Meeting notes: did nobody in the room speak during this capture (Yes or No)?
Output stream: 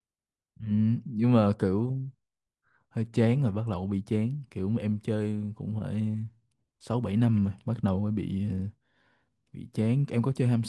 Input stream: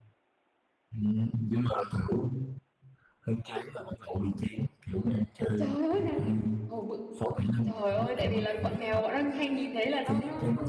No